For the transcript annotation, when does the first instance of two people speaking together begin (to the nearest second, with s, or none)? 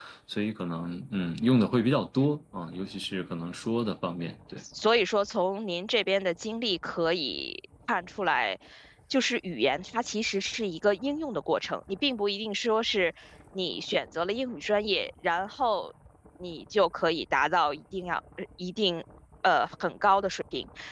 none